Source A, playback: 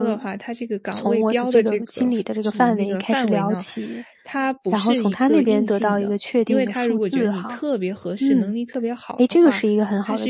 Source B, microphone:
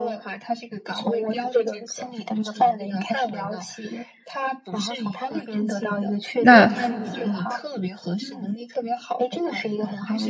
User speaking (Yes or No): Yes